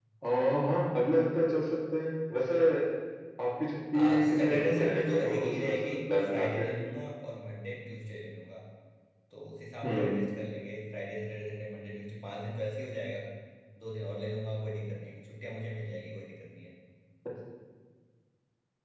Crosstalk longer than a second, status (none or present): present